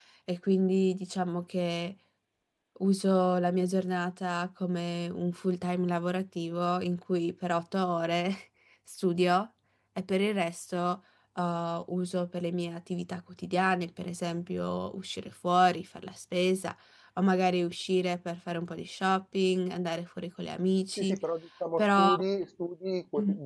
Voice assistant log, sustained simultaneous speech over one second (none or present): none